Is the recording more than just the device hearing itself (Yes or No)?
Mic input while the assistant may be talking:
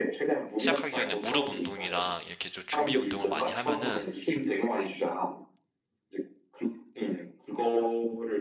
Yes